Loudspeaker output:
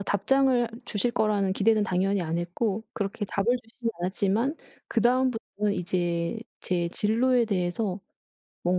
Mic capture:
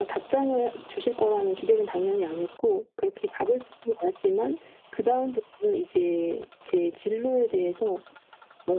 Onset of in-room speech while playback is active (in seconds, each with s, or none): none